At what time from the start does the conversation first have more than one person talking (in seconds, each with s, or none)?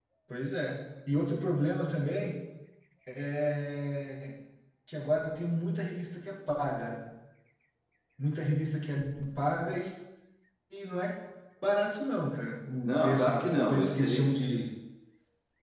12.8 s